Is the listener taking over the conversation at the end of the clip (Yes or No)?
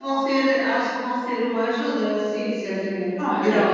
Yes